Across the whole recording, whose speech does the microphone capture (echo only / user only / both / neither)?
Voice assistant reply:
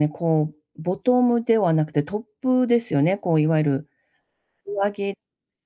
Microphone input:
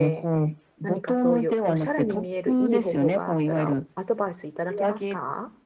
both